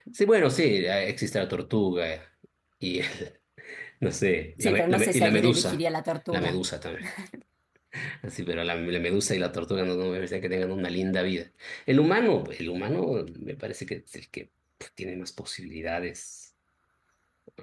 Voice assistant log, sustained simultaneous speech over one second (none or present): present